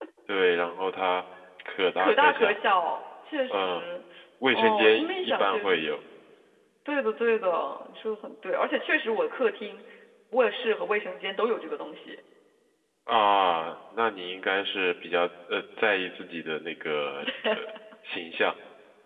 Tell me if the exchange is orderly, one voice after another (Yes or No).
No